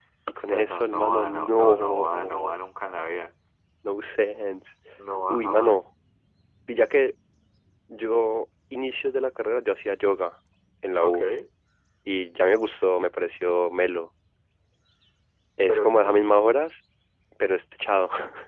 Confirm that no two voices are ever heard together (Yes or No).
No